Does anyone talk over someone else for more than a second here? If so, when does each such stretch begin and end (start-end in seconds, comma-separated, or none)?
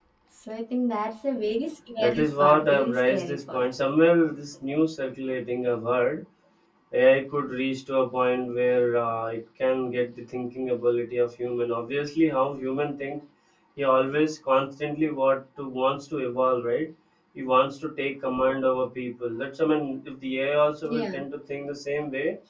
2.0-3.6